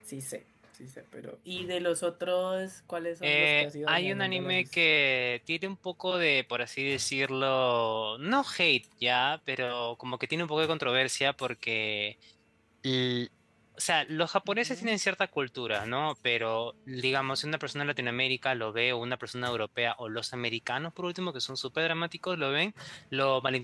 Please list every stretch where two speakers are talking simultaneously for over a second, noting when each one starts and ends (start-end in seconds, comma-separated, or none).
3.2-4.7